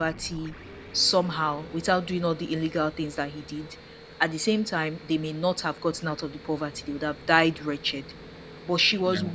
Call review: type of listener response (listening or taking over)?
listening